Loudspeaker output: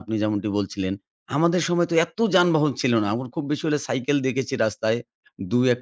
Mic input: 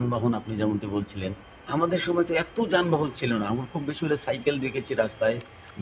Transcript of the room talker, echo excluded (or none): none